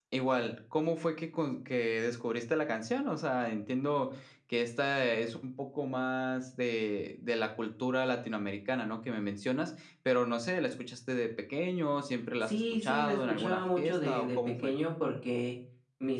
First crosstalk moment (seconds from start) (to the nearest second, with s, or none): 12 s